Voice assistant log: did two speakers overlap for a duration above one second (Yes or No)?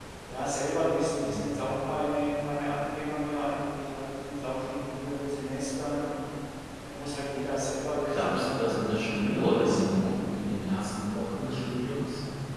Yes